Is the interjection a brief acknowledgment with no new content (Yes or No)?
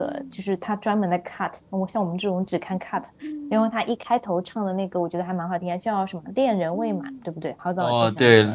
No